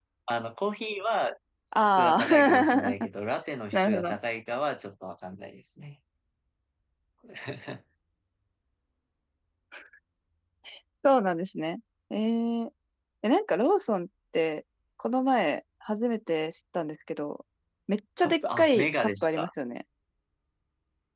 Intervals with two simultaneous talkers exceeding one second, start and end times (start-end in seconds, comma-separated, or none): 1.8-3.1, 18.2-19.5